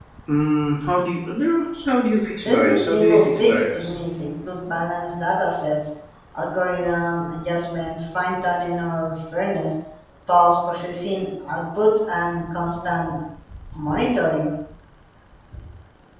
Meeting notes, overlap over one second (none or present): present